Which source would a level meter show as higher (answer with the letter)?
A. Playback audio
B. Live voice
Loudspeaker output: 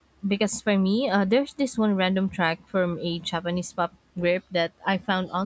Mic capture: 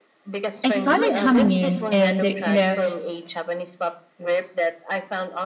B